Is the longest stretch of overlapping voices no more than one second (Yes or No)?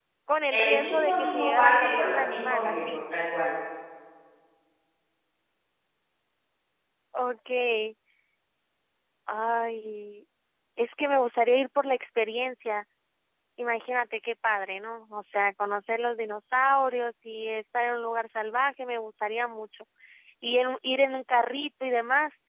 No